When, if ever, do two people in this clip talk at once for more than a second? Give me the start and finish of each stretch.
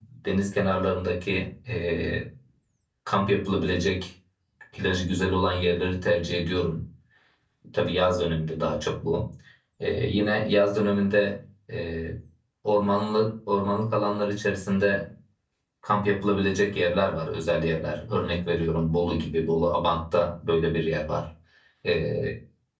none

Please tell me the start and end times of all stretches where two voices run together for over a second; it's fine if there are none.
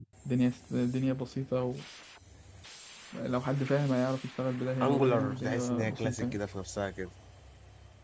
4.8-6.4

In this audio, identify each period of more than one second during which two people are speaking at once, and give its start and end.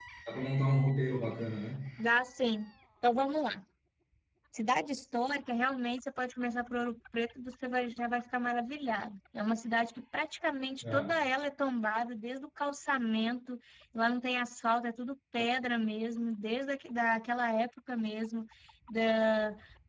none

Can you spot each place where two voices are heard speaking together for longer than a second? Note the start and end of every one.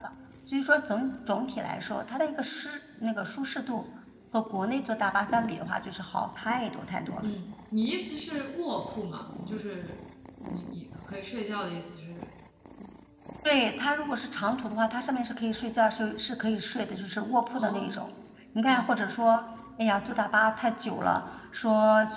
none

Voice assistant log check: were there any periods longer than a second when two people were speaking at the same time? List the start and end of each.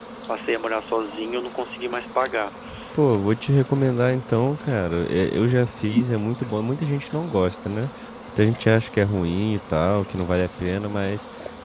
none

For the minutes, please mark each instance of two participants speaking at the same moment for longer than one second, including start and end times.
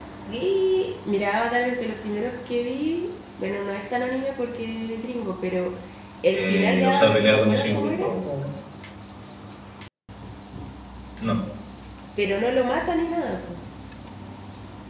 6.3-8.1

